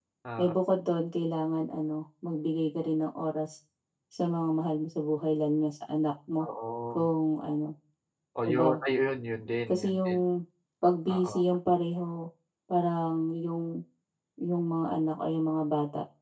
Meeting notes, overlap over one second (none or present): none